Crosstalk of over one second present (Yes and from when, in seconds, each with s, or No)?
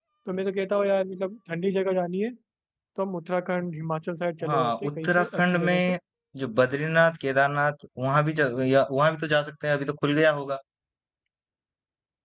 Yes, from 4.4 s